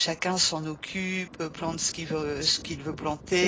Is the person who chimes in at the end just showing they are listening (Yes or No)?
Yes